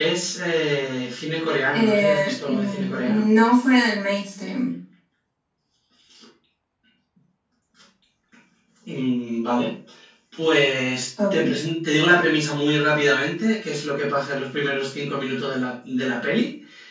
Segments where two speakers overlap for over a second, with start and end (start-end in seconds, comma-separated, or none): 1.7-3.2